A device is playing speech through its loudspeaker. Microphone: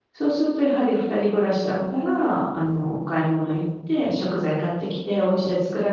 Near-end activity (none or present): present